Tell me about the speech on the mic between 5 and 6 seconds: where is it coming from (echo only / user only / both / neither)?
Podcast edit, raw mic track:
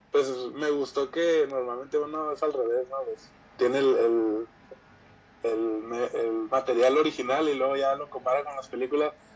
echo only